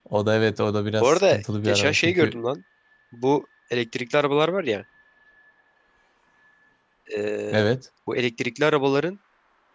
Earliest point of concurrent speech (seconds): 1.0 s

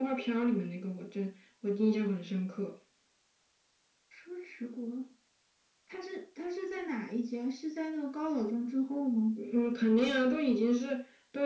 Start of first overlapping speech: none

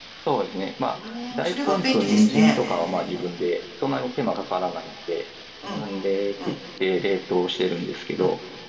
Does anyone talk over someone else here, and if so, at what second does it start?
0.9 s

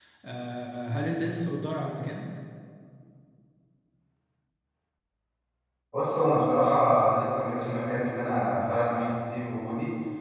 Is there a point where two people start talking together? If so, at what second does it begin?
none

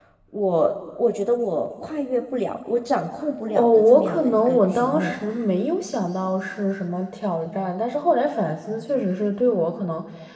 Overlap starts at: 3.6 s

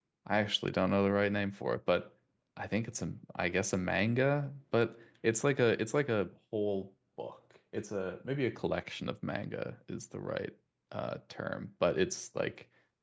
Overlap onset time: none

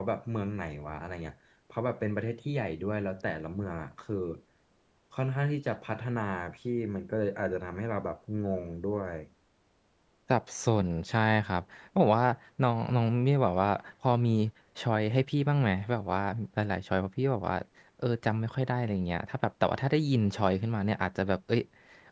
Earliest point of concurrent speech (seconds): none

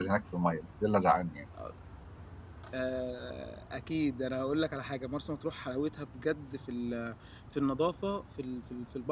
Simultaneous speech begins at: none

